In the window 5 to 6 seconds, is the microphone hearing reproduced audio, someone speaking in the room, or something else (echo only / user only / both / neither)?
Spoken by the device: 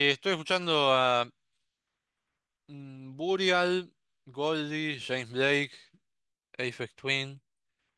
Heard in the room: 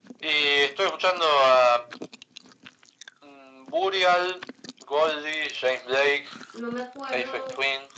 echo only